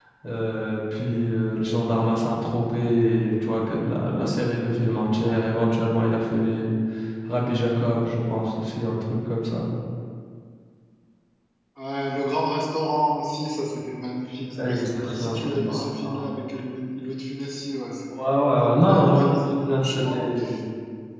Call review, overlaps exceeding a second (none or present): present